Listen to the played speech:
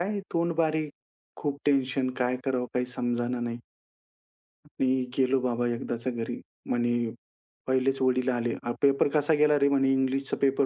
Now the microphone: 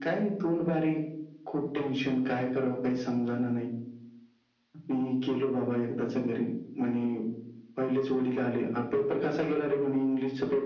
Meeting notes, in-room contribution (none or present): none